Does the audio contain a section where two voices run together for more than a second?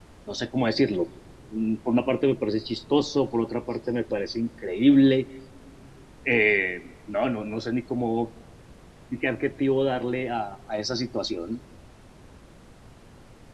No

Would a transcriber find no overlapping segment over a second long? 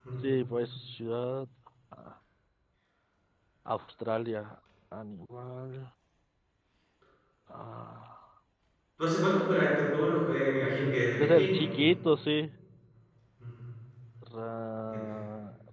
Yes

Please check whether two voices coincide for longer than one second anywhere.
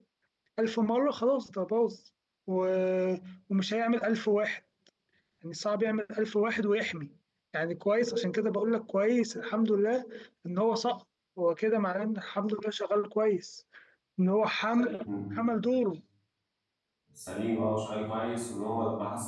No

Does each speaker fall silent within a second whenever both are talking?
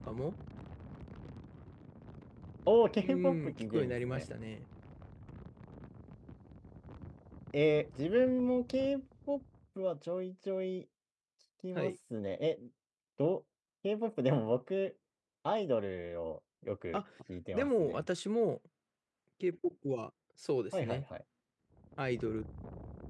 No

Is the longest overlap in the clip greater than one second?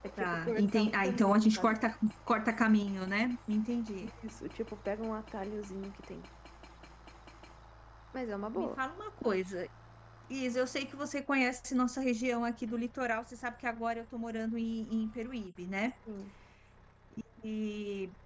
Yes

